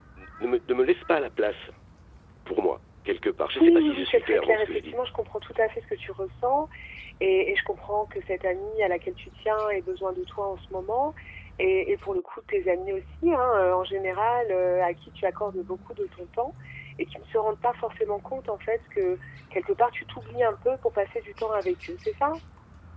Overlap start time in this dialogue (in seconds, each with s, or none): 3.5 s